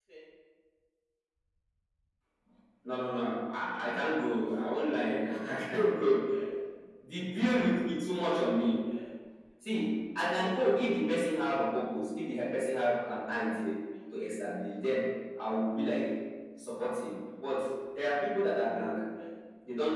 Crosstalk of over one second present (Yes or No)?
No